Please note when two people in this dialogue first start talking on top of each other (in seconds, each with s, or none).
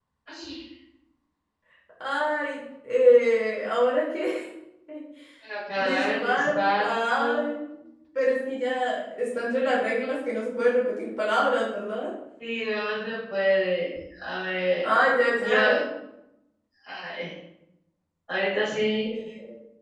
5.8 s